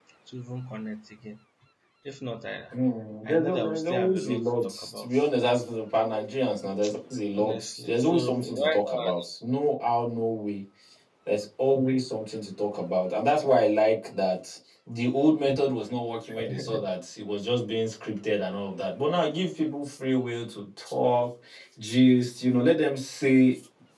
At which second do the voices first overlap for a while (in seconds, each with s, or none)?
3.3 s